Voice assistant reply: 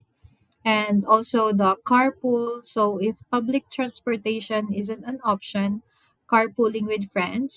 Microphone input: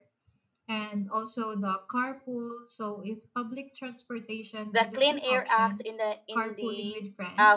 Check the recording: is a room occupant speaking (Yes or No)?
Yes